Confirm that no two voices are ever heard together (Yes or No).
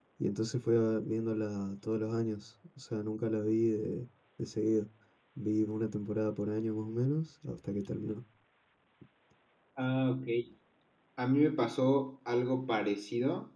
Yes